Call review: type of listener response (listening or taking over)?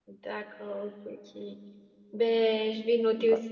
listening